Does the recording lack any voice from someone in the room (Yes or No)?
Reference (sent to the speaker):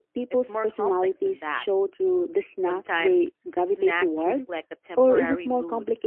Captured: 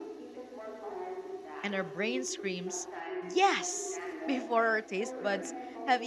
No